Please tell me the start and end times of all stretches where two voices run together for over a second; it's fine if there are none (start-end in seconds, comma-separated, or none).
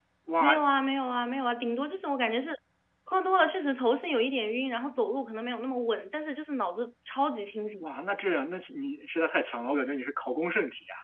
none